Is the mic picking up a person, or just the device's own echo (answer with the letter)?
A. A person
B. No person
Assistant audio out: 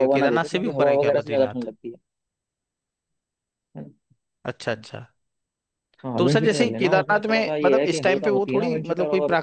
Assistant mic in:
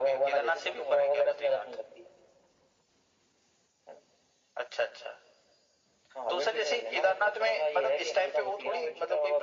B